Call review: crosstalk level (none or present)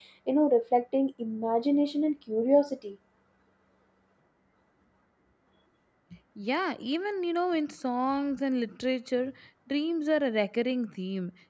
none